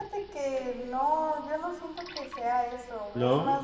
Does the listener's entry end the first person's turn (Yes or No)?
No